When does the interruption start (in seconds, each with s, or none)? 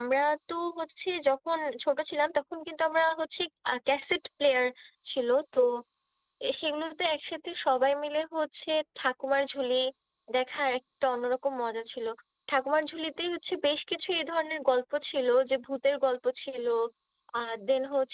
none